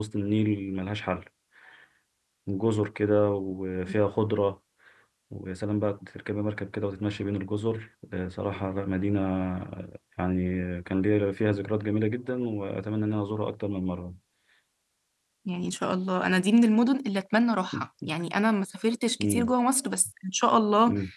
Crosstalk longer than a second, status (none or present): none